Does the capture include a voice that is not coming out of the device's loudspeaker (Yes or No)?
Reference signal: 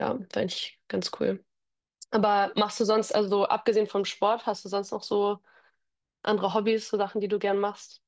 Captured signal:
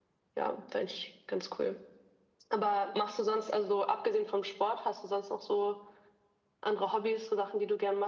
No